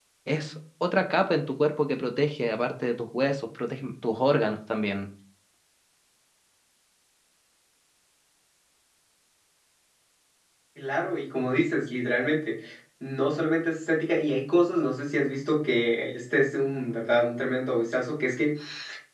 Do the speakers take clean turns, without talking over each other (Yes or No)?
Yes